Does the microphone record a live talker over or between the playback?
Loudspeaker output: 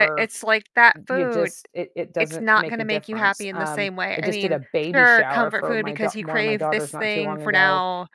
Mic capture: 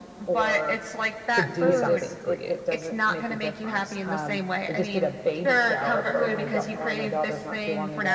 Yes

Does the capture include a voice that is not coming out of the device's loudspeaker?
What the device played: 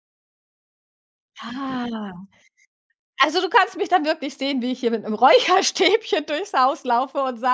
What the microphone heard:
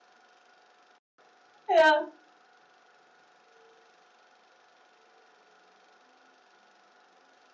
Yes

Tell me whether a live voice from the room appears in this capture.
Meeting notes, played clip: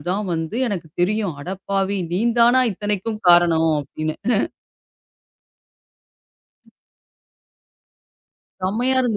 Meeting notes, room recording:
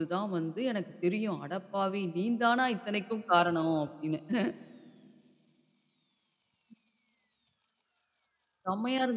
No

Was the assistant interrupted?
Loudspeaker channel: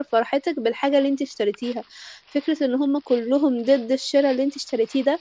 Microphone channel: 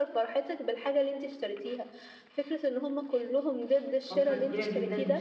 Yes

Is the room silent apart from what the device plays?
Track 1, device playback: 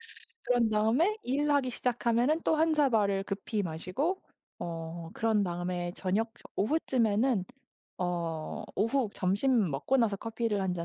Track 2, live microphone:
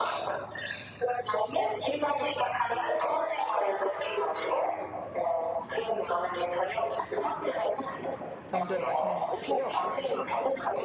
No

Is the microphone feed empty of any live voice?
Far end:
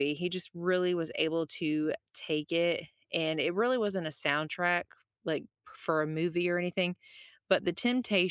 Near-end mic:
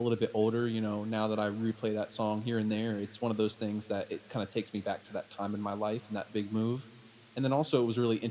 No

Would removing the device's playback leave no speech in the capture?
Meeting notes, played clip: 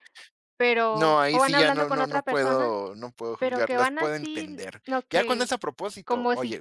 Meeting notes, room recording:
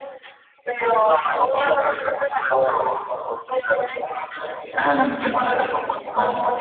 No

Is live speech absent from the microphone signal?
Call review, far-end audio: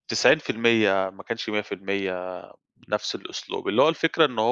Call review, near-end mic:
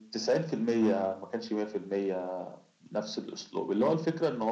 Yes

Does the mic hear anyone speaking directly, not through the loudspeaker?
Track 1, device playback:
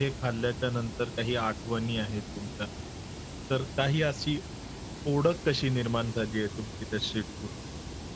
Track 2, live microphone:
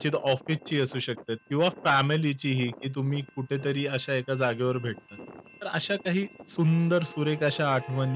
Yes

